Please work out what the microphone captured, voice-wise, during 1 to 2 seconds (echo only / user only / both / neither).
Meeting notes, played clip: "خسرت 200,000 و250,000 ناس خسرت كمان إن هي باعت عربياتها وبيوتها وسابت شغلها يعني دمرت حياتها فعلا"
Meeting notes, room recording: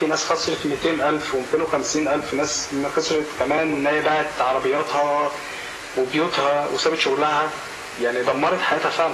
echo only